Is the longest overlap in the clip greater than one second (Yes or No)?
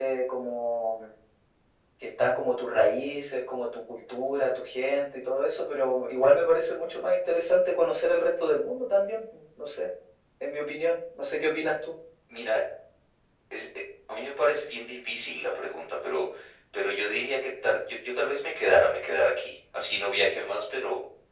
No